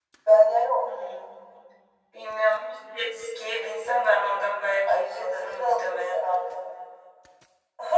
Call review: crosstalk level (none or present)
present